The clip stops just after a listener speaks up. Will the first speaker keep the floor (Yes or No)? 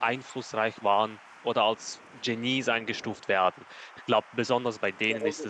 No